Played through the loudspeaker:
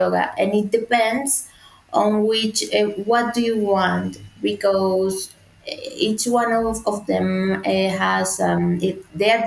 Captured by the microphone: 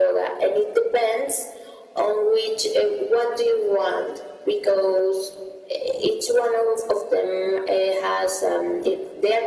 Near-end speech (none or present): none